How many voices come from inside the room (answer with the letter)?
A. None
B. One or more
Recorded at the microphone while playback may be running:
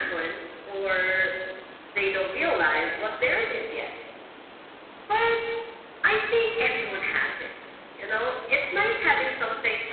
A